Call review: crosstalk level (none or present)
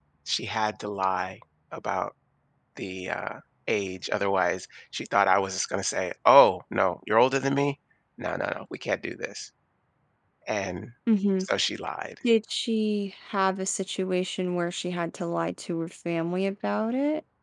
none